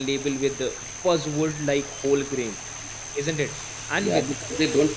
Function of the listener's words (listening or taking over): taking over